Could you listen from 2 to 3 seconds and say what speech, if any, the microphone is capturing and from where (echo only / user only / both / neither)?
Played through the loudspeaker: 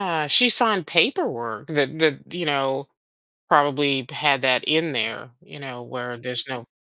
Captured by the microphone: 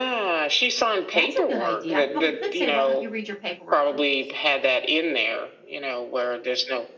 both